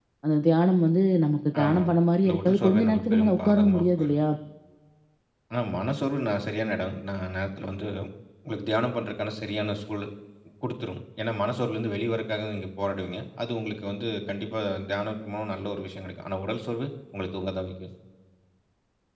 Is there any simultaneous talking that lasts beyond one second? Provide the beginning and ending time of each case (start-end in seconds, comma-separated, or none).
2.2-4.2